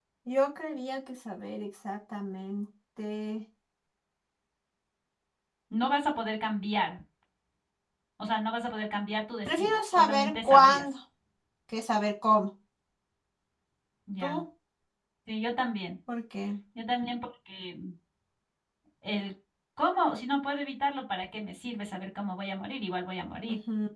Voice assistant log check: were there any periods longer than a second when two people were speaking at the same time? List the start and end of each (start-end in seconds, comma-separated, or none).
9.5-10.8